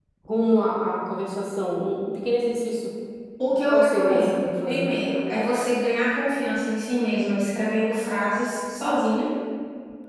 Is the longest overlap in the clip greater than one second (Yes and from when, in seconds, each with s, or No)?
Yes, from 3.7 s